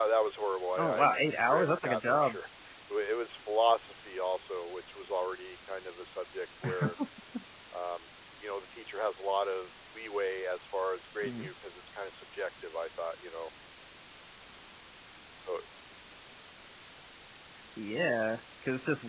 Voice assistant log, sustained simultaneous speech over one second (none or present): present